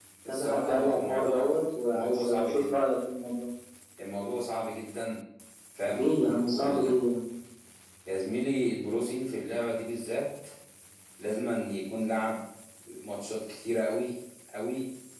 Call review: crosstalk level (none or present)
present